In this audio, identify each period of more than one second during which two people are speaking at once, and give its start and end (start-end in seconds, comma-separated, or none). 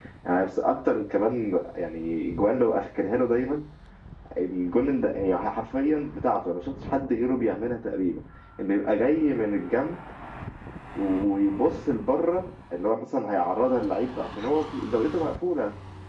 none